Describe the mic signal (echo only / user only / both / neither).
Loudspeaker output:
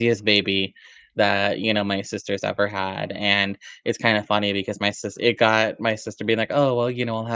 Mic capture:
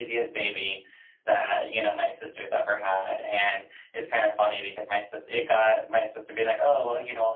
echo only